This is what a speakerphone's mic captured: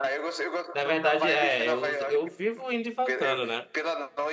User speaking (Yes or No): Yes